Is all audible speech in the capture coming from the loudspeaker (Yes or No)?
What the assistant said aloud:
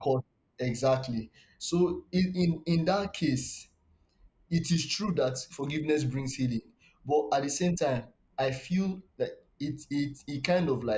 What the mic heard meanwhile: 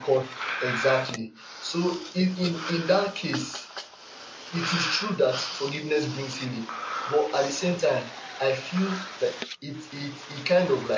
Yes